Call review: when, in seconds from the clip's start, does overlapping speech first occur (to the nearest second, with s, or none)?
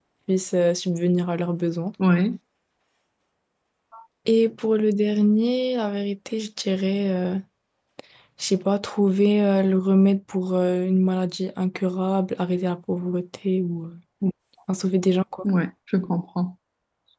none